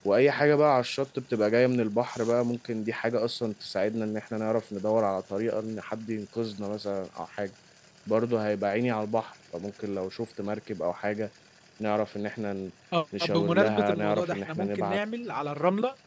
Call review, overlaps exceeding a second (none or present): present